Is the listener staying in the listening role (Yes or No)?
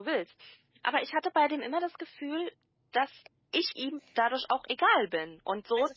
No